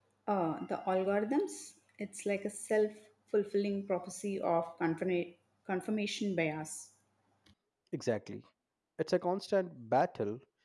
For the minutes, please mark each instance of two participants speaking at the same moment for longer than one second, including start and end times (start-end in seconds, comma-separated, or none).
none